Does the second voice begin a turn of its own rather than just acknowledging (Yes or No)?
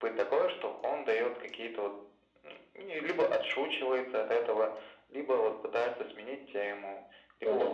No